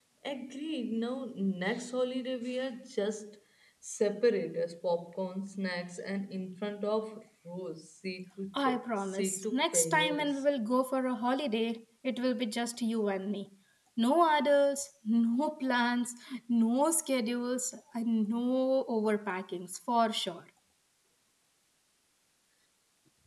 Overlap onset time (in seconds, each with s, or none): 8.5 s